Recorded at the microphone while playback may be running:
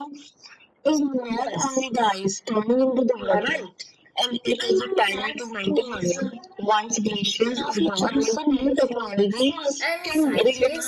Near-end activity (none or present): present